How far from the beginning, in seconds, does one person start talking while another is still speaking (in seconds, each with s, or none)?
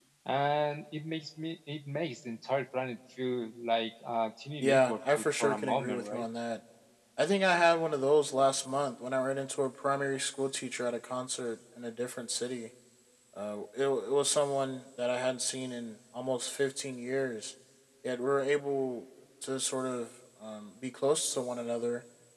4.6 s